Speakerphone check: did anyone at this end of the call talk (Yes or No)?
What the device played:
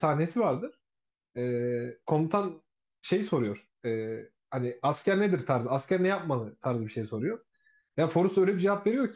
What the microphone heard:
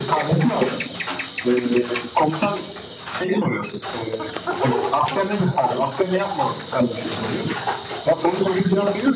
No